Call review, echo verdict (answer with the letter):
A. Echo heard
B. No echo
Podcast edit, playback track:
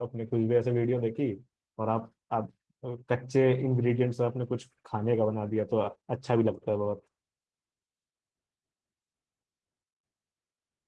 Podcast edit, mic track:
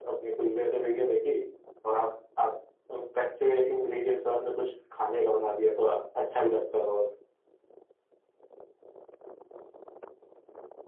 A